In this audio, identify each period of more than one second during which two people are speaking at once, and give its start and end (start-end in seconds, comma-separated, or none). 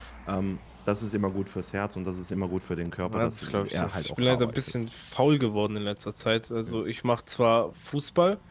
3.0-4.7